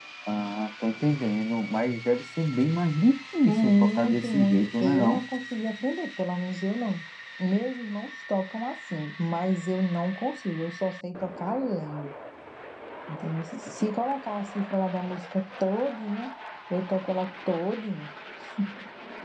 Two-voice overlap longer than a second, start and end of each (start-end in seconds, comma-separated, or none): 3.5-5.2